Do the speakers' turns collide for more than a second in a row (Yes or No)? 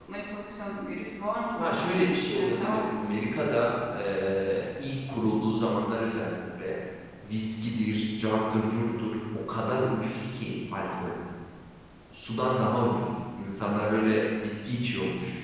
Yes